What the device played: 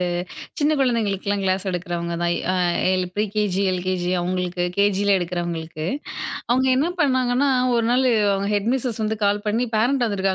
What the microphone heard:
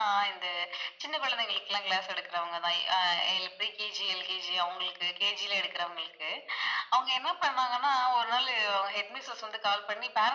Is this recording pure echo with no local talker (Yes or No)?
Yes